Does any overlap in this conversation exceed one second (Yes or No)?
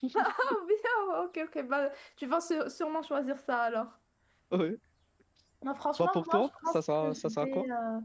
Yes